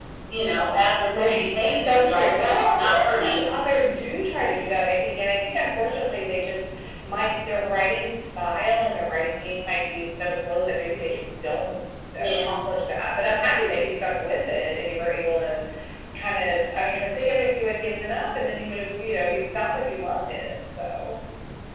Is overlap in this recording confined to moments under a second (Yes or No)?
No